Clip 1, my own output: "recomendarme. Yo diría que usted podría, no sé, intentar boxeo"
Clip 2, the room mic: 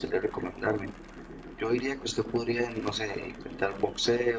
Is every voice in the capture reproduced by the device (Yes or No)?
Yes